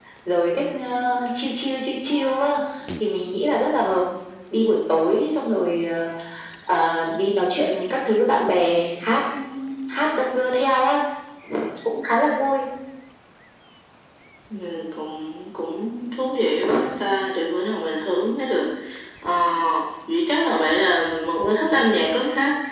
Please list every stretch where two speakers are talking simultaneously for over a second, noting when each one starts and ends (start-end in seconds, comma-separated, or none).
none